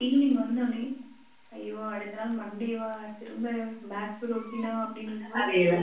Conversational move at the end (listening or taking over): taking over